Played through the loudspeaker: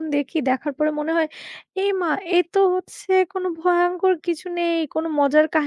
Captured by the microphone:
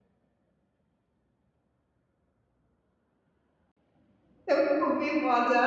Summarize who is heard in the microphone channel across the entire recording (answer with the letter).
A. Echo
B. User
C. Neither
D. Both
B